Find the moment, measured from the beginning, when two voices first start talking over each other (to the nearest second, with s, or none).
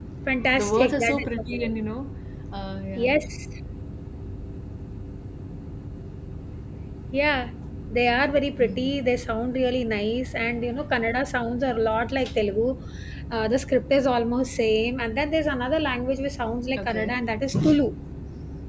1 s